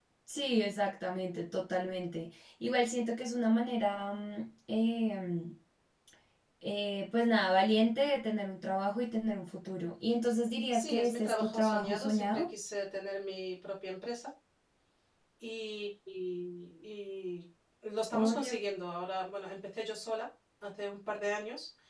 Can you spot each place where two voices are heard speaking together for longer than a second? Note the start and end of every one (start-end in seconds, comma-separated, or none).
10.7-12.4